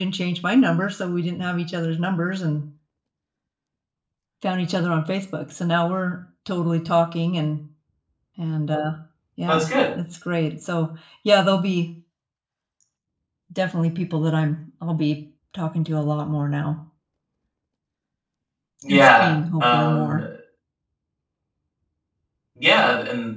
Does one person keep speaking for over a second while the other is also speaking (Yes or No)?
Yes